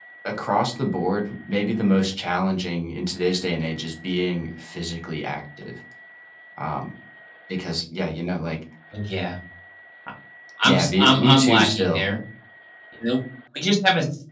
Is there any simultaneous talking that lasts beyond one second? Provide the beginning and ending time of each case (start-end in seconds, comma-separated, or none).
10.6-12.1